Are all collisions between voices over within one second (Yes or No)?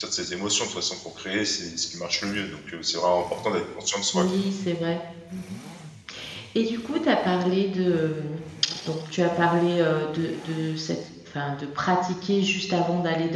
Yes